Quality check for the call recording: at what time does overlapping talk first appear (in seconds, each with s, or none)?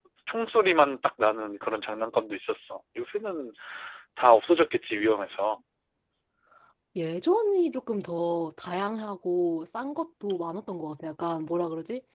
none